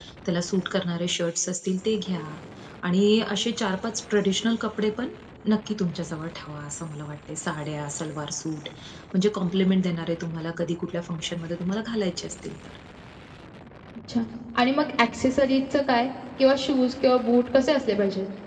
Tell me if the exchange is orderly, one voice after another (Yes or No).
Yes